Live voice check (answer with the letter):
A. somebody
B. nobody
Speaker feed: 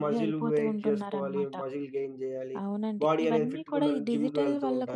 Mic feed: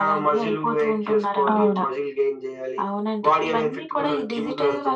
A